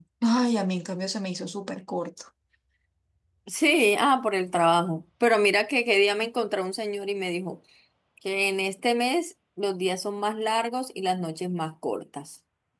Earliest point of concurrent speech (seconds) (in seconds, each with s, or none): none